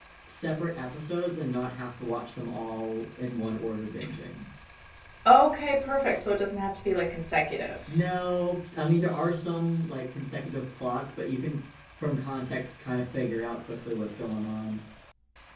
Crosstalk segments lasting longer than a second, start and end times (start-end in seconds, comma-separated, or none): none